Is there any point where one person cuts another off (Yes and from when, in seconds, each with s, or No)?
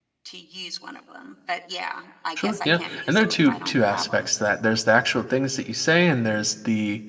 Yes, from 2.4 s